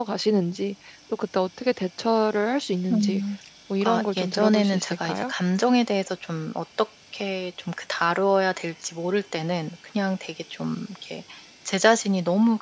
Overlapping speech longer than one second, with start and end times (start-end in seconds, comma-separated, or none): 3.8-5.3